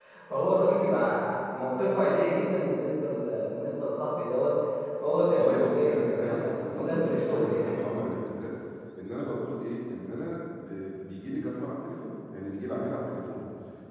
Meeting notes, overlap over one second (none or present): present